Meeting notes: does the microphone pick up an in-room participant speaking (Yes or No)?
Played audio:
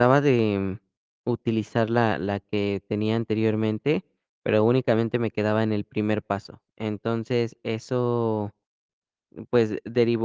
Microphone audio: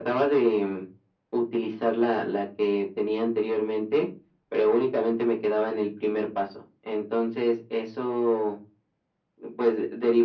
No